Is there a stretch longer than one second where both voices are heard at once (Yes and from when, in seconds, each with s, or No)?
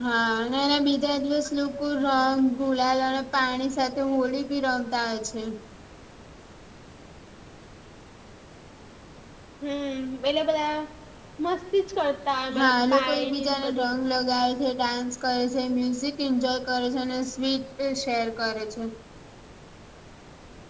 Yes, from 12.5 s